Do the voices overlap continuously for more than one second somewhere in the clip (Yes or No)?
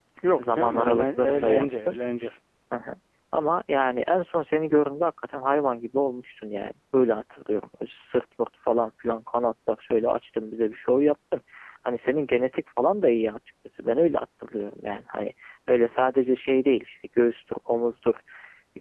Yes